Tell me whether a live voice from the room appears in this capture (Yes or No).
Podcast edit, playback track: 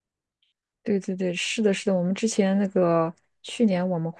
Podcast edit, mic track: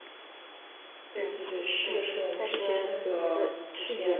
Yes